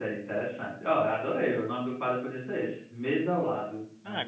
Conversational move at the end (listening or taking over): taking over